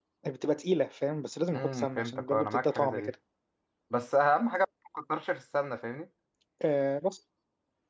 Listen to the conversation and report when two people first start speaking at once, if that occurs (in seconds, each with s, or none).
1.5 s